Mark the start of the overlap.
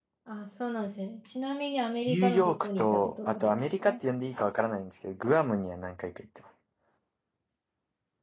2.1 s

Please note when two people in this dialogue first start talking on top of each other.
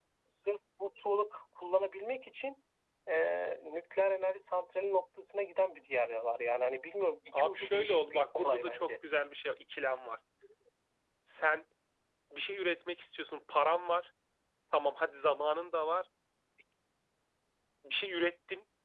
7.3 s

